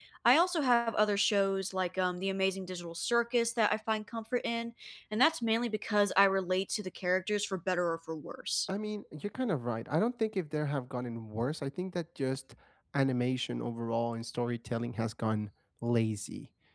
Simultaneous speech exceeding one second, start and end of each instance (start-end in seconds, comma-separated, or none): none